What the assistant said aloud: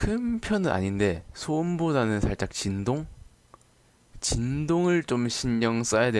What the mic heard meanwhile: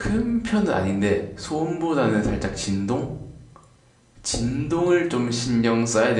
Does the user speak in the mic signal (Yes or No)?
No